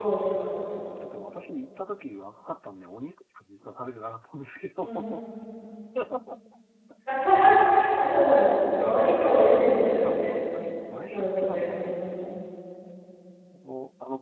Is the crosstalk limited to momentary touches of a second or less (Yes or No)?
No